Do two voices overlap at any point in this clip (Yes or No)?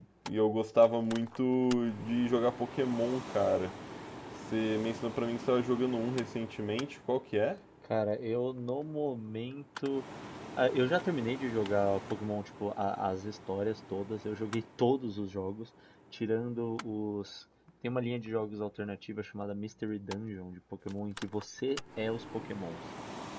No